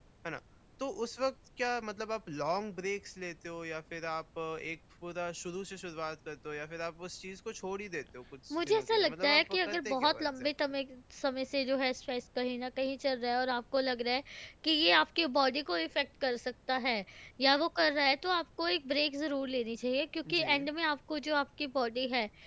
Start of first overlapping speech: 8.5 s

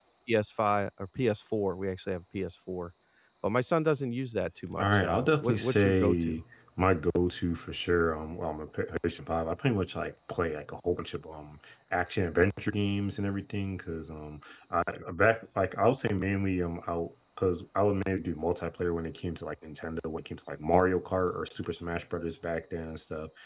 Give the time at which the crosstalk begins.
4.8 s

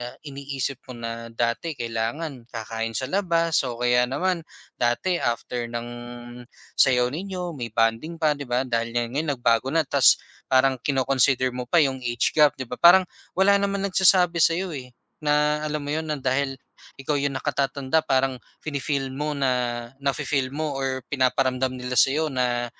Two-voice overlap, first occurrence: none

